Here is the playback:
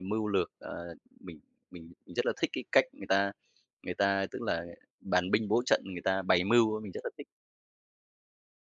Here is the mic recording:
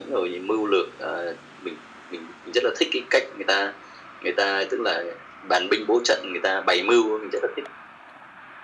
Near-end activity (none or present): none